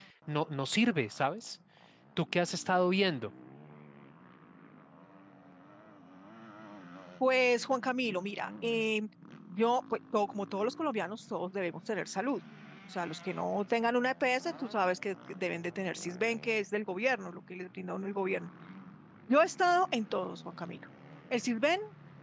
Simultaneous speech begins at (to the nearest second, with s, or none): none